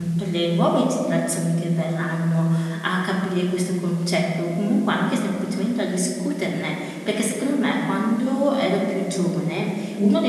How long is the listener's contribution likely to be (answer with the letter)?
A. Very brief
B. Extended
A